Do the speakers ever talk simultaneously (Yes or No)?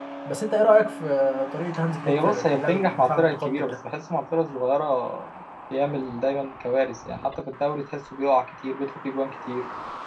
Yes